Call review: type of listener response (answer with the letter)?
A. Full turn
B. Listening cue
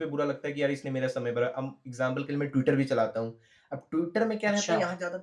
B